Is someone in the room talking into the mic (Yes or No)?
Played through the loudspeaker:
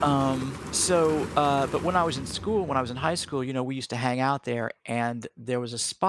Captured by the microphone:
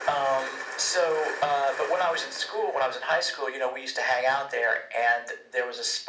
No